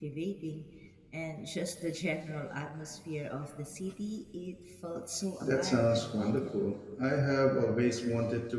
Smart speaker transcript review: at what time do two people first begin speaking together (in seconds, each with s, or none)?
5.4 s